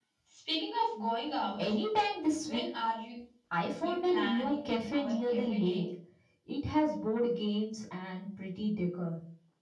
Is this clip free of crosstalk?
No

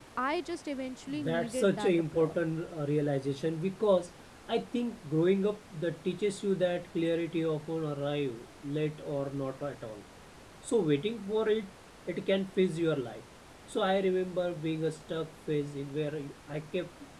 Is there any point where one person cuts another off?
Yes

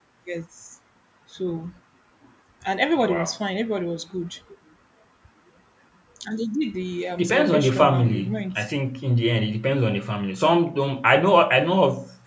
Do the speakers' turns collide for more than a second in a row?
Yes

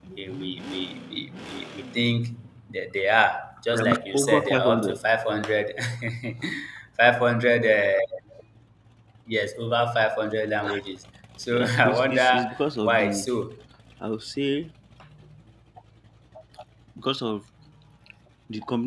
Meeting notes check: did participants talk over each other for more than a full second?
Yes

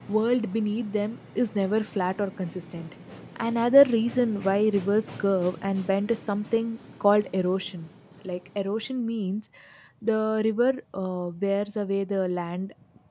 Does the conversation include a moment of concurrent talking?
No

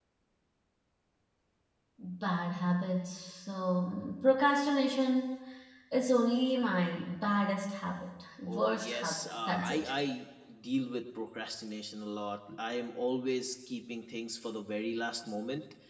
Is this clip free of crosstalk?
No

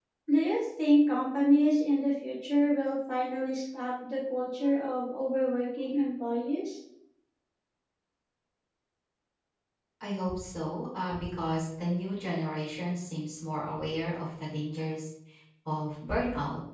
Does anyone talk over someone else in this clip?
No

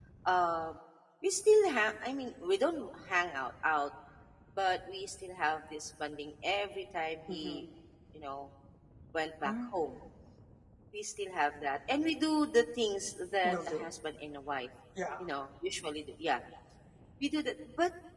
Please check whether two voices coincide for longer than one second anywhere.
No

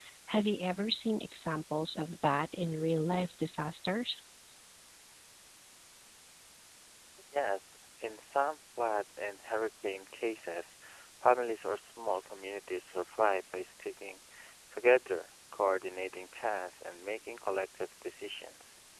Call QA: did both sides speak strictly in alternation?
Yes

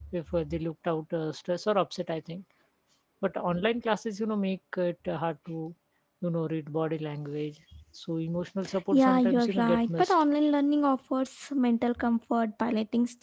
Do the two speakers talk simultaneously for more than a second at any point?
Yes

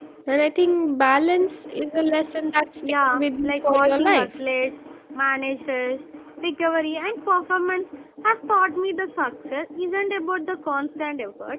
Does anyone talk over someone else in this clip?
Yes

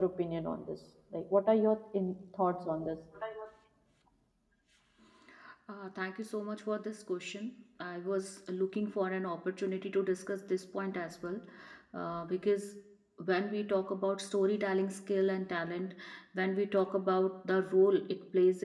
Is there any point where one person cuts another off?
No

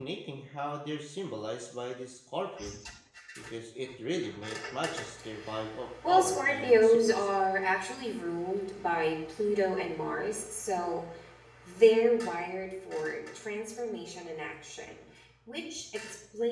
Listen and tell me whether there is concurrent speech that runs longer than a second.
Yes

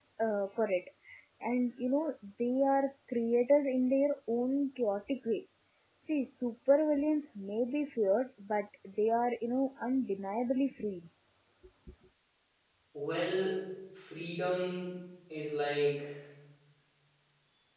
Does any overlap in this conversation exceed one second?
No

